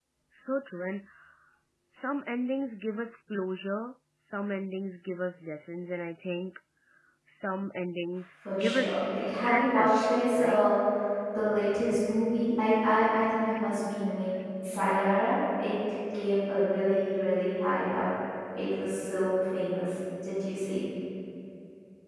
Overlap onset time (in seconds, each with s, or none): 8.4 s